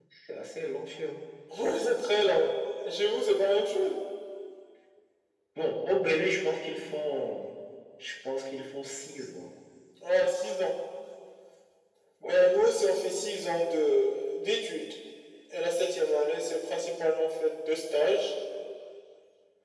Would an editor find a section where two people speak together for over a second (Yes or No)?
No